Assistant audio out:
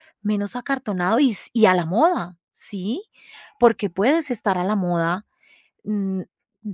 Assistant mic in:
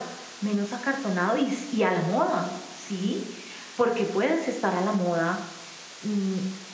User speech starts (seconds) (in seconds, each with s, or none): none